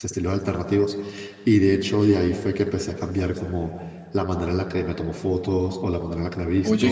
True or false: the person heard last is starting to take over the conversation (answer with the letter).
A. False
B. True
A